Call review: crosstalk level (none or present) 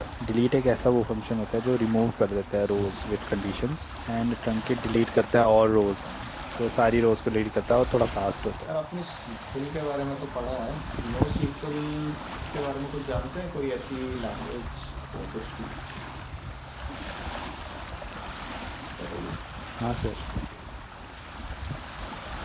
none